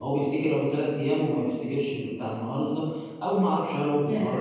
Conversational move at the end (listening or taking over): listening